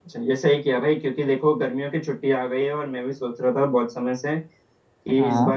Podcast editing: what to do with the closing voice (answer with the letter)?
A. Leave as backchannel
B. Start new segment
A